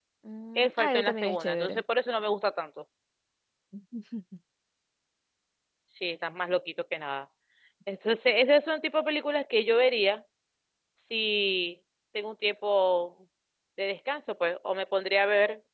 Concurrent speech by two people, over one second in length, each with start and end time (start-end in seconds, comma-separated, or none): 0.6-1.8